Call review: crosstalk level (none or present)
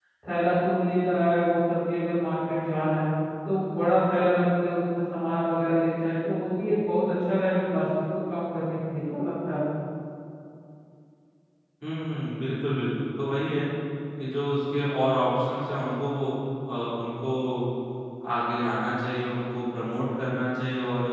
none